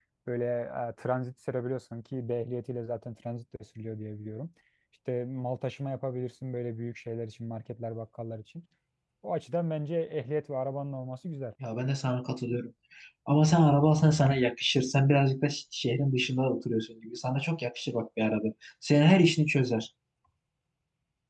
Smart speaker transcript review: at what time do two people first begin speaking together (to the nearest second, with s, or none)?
none